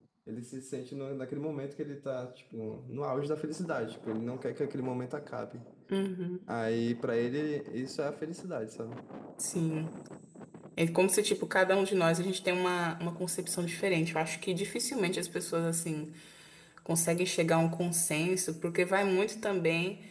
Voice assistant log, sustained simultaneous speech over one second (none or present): none